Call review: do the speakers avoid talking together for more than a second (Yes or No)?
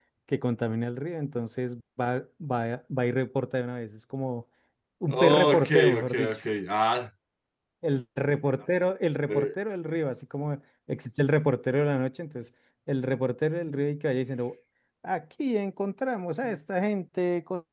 No